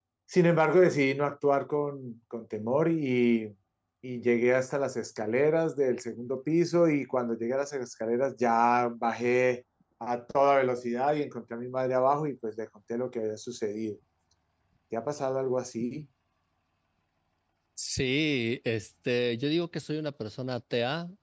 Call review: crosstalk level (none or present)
none